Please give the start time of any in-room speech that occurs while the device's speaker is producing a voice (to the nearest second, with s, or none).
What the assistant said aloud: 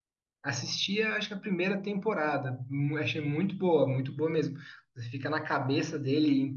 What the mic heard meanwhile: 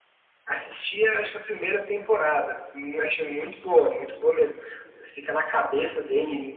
none